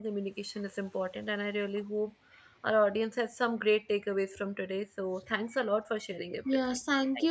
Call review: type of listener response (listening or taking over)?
taking over